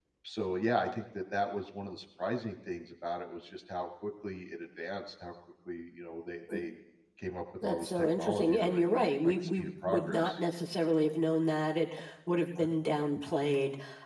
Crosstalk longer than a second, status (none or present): present